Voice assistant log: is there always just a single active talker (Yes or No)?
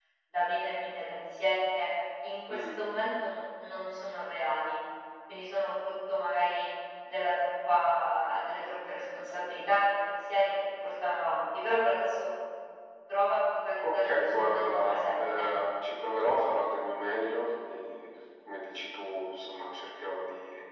No